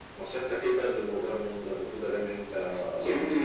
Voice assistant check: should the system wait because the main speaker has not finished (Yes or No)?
No